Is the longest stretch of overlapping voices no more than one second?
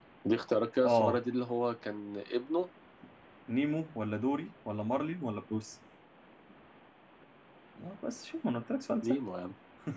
Yes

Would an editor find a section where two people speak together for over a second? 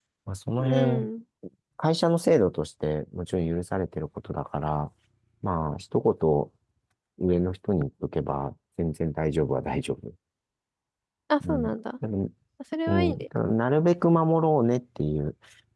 No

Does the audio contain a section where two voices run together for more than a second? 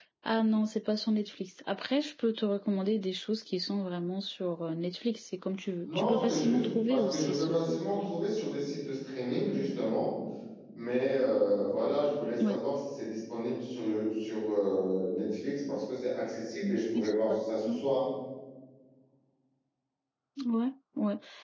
Yes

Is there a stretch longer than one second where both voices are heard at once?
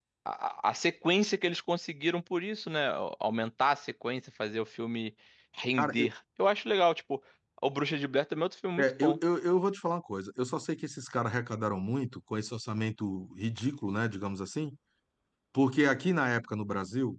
No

